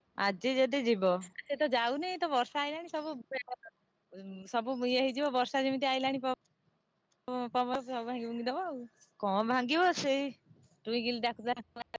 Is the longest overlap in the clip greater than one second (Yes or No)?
No